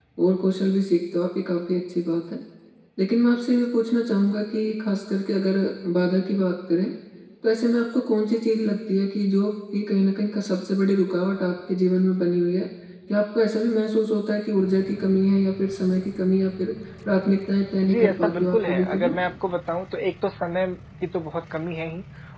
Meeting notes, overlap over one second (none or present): present